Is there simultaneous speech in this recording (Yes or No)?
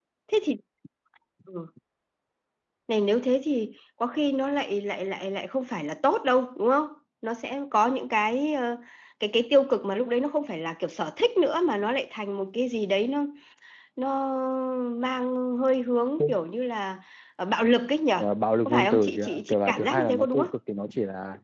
Yes